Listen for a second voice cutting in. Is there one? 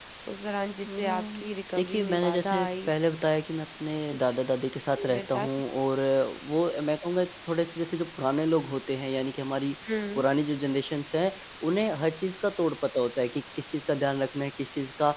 Yes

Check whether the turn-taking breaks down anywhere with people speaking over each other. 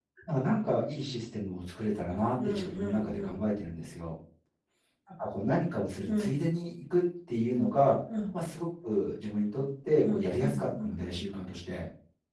Yes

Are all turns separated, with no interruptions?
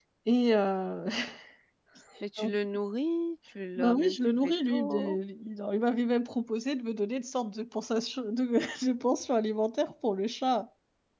No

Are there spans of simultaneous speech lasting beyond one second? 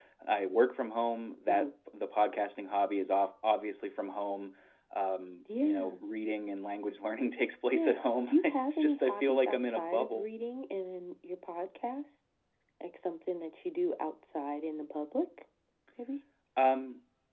Yes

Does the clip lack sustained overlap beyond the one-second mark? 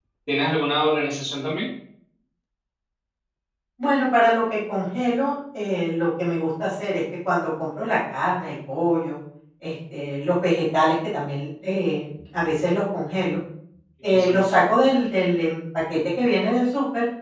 Yes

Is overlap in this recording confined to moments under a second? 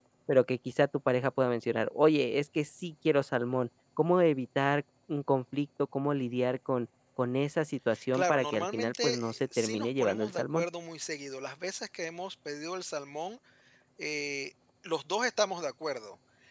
No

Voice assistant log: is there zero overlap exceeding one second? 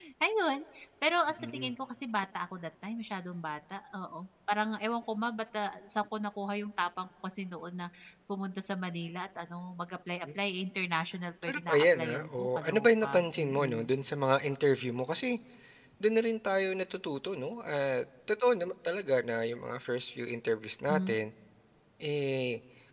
No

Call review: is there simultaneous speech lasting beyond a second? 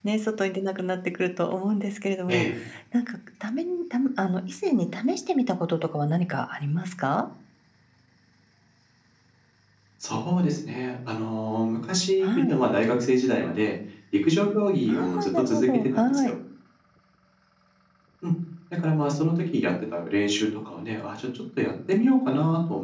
Yes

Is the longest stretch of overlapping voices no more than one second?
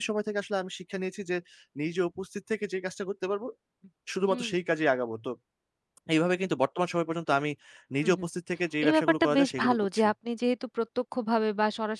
No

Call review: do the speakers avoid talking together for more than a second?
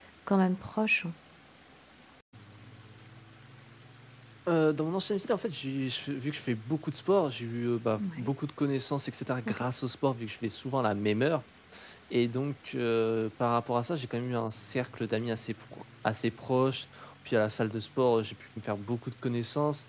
Yes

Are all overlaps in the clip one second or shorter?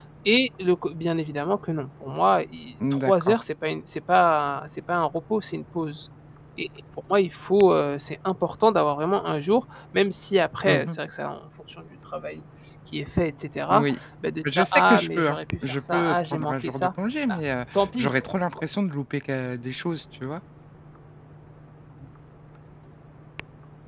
No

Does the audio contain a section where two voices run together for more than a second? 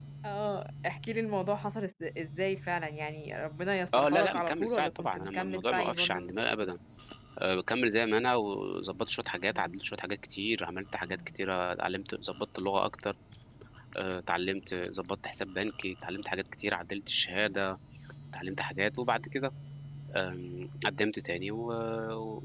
Yes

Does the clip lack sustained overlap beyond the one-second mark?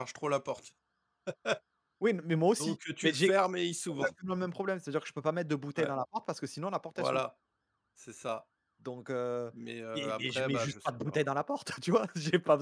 No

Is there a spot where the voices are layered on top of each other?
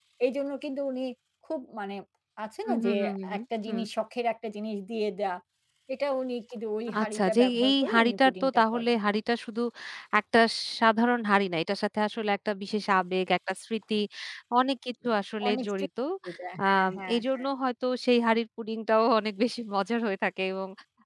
Yes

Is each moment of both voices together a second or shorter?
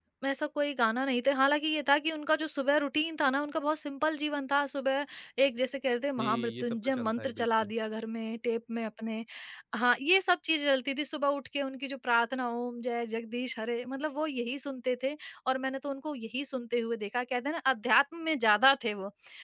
No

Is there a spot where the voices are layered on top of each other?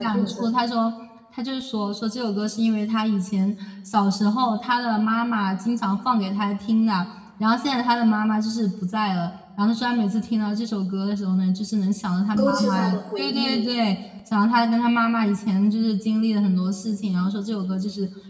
Yes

